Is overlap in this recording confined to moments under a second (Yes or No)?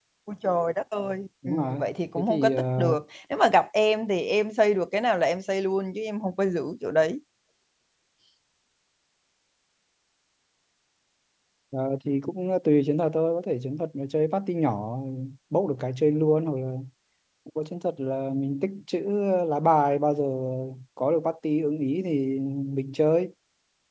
No